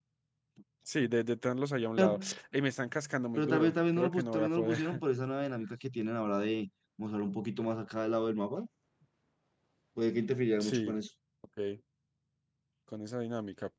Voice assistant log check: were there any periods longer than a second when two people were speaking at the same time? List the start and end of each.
3.4-4.8

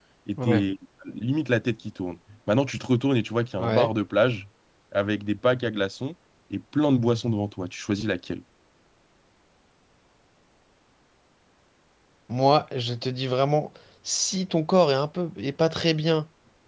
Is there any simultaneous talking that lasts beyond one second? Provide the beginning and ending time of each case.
none

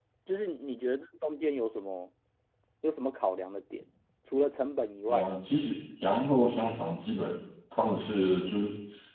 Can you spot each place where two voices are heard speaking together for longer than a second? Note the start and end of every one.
none

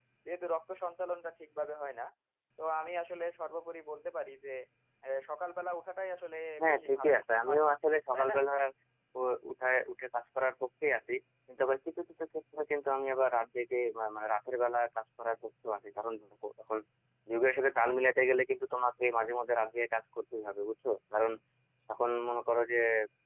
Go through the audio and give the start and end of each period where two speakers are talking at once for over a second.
6.6-8.4

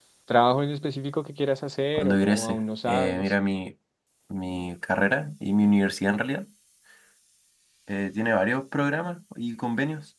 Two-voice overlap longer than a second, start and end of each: 2.0-3.3

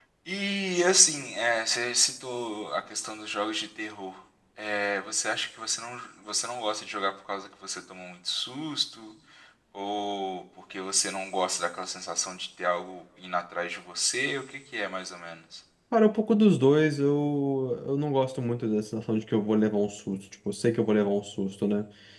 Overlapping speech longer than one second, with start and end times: none

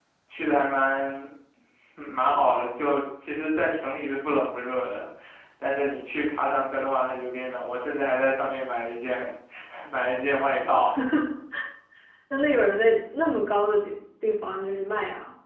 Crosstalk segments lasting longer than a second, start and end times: none

